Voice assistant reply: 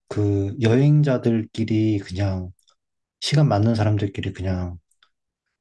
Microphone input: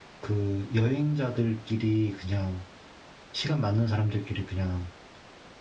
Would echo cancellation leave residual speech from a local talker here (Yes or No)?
No